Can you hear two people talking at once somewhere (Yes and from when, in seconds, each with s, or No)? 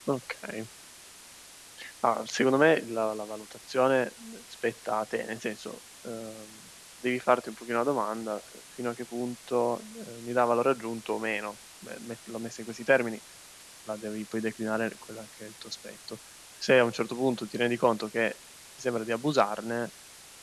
No